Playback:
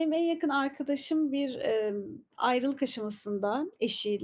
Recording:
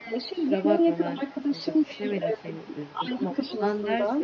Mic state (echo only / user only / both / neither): both